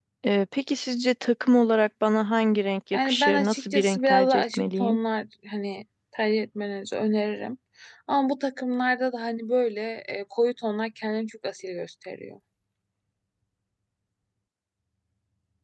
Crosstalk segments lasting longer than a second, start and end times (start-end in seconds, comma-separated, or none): 3.0-5.0